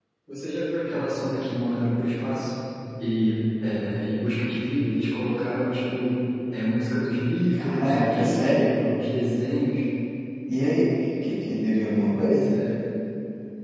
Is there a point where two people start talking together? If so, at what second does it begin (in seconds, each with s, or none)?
7.5 s